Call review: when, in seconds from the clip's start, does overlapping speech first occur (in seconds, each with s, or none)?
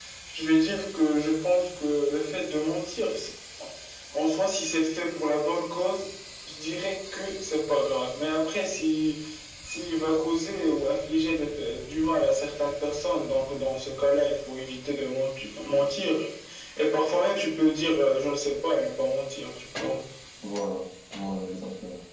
none